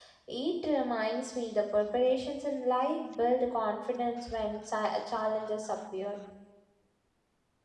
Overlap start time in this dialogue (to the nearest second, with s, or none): none